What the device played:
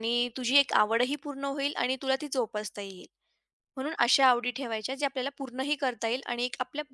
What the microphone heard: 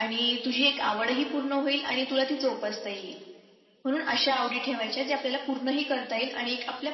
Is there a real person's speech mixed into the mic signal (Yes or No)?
No